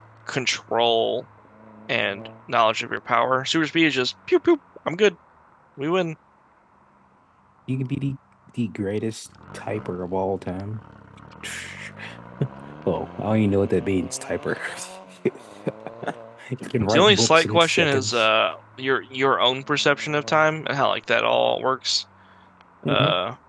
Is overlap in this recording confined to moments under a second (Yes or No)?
No